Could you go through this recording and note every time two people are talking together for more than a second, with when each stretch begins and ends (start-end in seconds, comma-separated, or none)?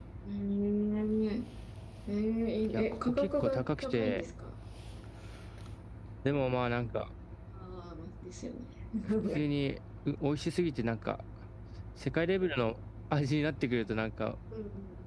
2.7-4.2